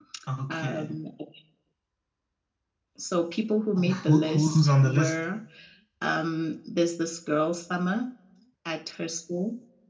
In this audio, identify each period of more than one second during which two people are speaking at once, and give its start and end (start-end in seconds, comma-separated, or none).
3.8-5.1